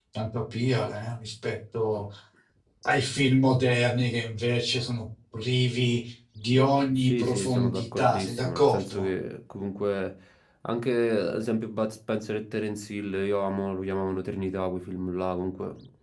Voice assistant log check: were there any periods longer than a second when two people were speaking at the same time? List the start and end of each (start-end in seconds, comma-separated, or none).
7.0-9.1